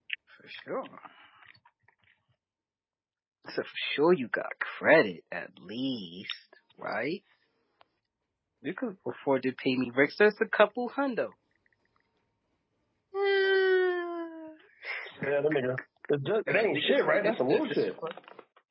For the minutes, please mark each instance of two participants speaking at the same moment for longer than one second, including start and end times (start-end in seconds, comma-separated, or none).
16.5-17.9